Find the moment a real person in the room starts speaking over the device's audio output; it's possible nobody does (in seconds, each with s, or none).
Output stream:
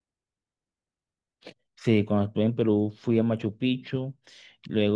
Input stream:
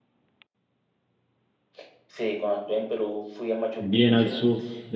3.8 s